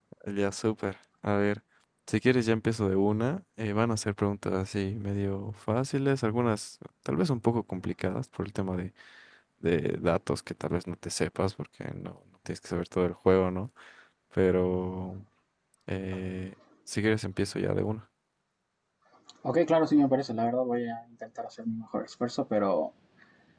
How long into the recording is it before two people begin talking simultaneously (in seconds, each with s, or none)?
none